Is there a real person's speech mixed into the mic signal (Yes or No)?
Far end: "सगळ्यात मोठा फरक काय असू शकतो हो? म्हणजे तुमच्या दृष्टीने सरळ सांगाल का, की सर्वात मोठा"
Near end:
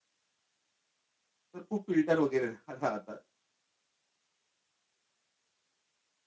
Yes